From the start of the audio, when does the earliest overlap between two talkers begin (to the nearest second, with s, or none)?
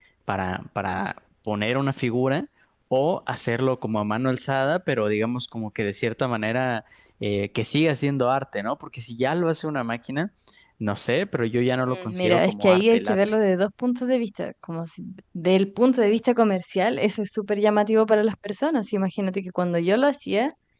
12 s